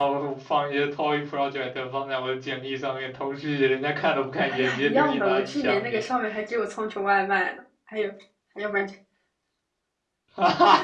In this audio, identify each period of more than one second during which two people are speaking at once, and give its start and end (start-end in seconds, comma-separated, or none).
4.5-6.0